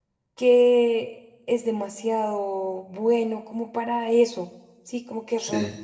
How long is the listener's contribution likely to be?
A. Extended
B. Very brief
B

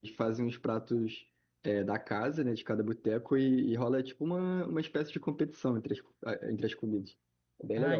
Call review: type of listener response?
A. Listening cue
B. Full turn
B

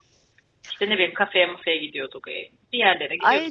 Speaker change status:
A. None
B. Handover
B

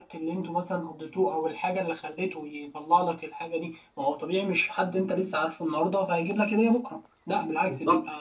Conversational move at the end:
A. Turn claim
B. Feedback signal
A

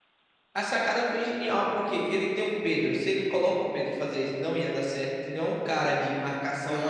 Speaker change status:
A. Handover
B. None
A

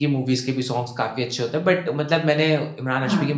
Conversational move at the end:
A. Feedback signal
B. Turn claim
A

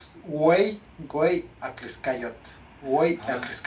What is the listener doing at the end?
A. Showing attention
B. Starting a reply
B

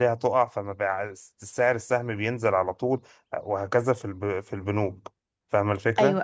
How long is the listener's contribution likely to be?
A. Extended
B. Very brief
A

